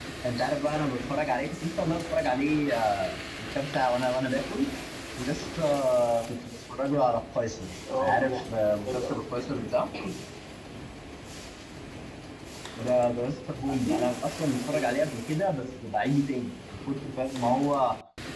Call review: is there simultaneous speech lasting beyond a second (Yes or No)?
Yes